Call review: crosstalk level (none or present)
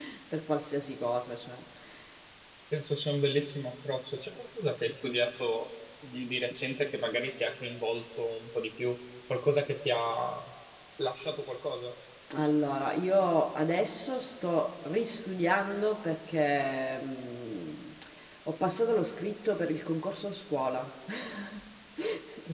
none